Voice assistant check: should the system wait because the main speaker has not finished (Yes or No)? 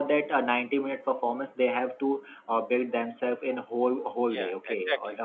Yes